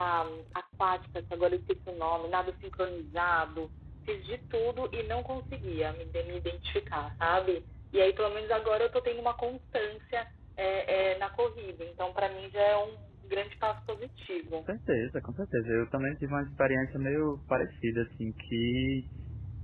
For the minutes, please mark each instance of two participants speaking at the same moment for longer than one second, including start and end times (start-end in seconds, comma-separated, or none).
none